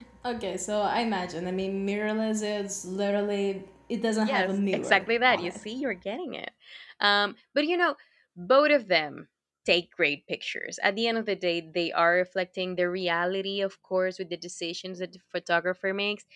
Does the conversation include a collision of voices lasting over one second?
Yes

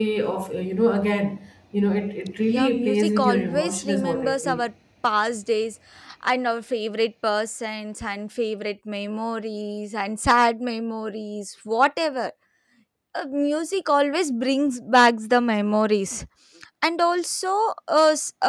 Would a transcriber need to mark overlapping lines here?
Yes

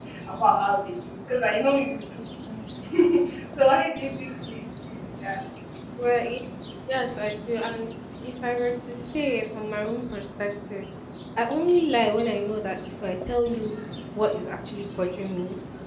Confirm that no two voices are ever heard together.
Yes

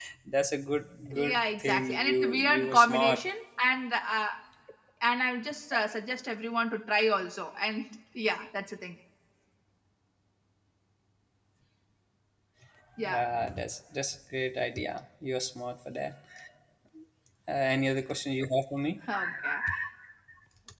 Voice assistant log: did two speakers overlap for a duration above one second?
Yes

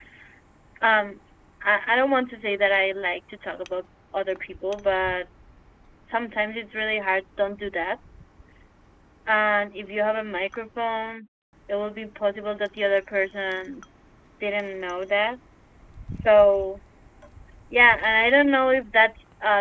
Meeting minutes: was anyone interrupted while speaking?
No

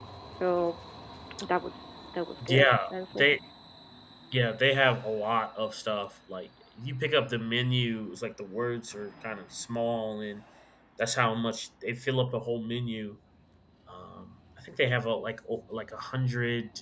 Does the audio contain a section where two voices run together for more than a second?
No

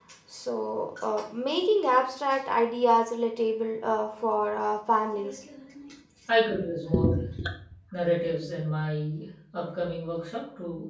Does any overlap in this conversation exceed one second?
No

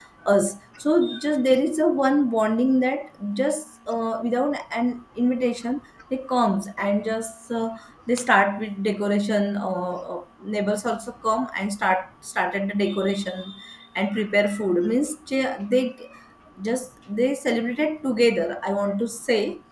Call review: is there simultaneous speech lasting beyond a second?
No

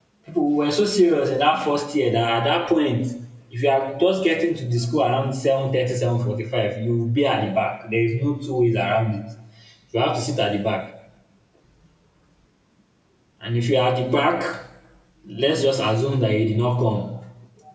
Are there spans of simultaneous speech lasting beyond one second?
No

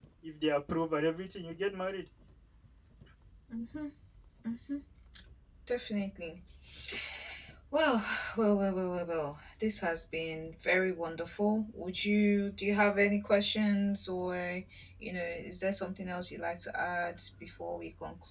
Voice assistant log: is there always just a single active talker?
Yes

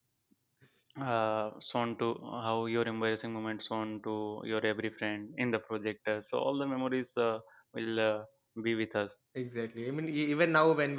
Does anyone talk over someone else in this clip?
No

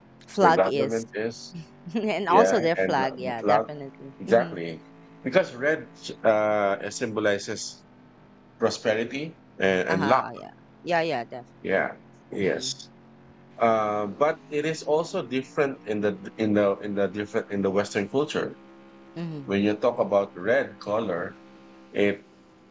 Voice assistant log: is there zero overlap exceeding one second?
No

